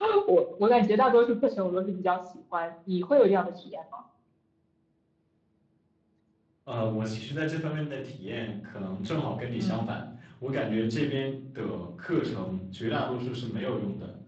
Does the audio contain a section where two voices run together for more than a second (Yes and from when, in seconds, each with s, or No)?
No